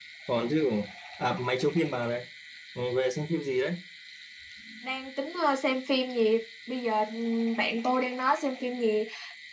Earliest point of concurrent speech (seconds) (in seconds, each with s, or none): none